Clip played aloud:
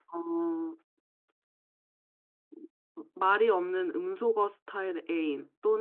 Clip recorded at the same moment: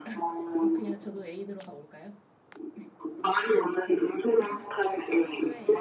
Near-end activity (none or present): present